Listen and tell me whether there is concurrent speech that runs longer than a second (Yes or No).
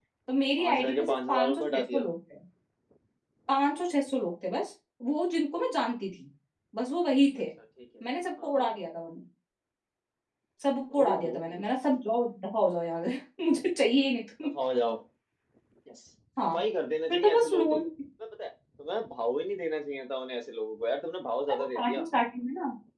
Yes